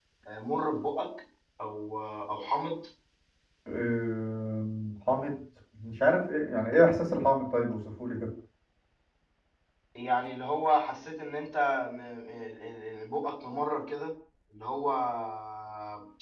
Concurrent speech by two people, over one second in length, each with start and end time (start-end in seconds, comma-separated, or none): none